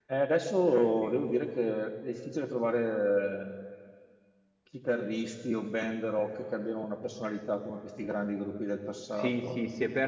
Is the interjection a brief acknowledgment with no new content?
No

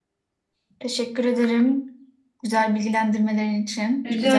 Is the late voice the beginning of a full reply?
Yes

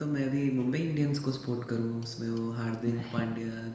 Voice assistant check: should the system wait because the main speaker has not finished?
Yes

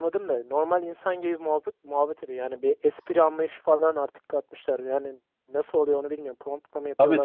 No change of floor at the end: No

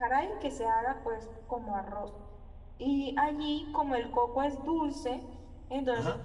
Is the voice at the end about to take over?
No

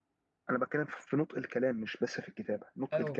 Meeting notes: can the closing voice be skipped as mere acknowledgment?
No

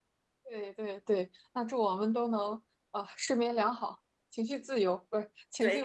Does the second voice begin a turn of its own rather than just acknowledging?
Yes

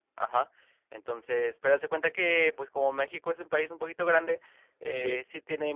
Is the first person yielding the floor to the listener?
No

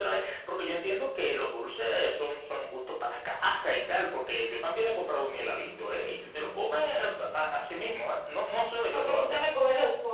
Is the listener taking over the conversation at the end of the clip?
Yes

